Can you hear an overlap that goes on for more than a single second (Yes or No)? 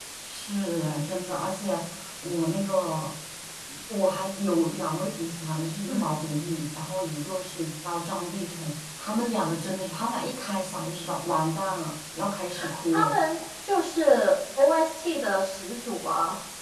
No